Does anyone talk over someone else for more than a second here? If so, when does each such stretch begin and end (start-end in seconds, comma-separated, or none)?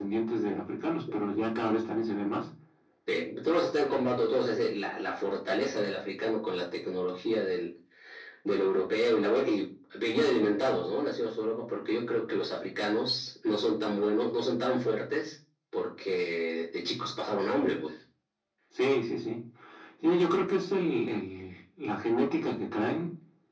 none